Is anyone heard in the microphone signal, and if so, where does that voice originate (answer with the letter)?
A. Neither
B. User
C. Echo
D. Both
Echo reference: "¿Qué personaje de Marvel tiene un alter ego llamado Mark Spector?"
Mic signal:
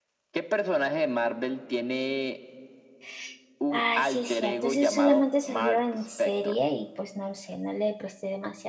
D